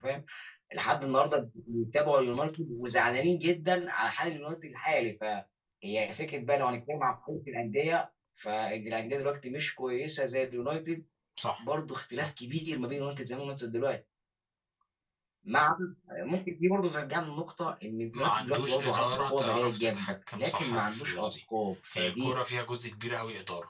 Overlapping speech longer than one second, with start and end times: 18.1-21.3

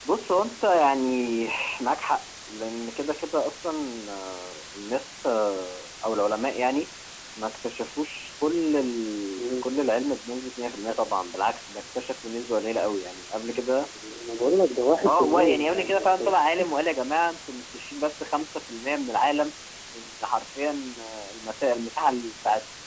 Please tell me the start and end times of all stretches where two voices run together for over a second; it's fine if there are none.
15.1-16.3

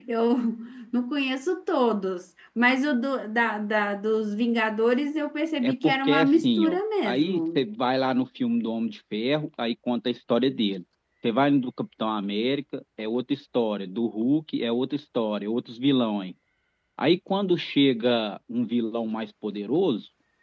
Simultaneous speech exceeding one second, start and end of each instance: 5.6-7.6

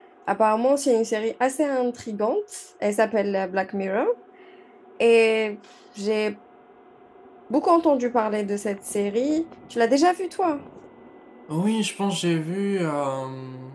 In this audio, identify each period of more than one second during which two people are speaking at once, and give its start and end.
none

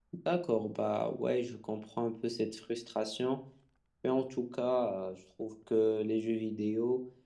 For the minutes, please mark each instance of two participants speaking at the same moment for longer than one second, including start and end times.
none

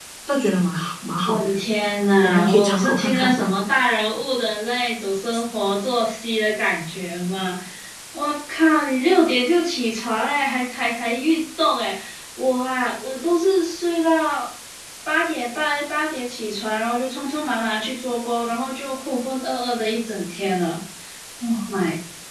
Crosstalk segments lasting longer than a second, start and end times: 2.2-3.5

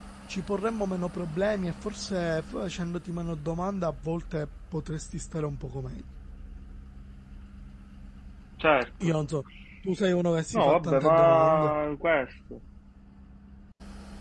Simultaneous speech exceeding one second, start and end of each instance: 10.5-11.7

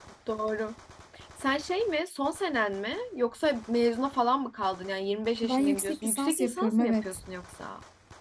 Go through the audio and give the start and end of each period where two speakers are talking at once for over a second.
5.4-7.2

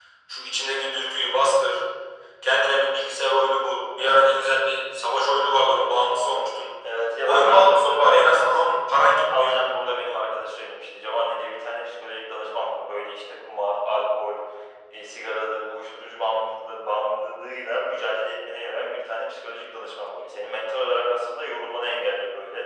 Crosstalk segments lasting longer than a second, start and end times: 7.2-8.8

